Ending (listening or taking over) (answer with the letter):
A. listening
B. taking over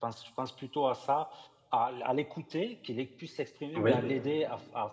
A